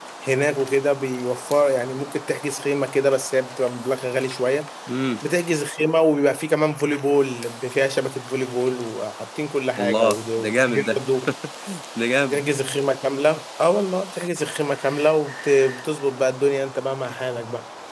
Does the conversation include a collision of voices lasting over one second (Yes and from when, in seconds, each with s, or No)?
Yes, from 9.8 s